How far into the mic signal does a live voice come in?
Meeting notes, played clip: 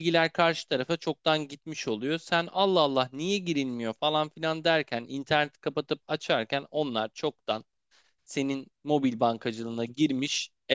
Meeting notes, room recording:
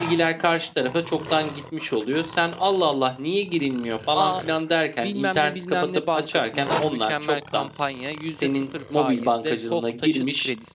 4.1 s

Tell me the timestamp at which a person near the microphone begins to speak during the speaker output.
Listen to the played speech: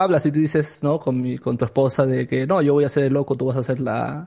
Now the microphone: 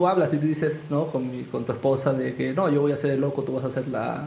none

